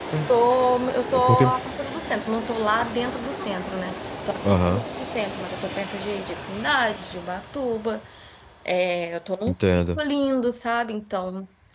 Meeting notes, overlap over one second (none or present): none